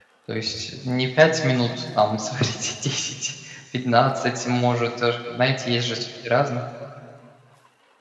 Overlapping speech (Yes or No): No